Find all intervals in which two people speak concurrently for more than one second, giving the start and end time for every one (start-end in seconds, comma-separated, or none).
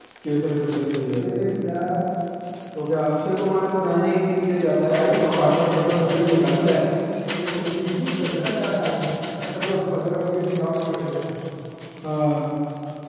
4.9-6.8